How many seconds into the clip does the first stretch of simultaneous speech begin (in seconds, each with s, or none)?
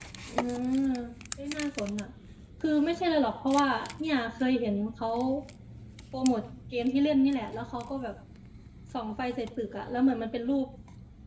none